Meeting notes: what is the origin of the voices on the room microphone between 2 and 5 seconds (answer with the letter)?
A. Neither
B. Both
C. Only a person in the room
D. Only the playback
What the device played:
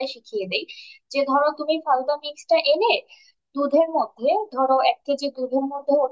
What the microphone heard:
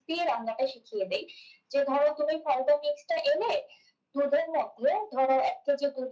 D